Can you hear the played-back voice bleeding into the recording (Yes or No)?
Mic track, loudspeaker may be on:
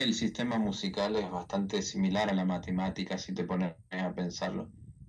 Yes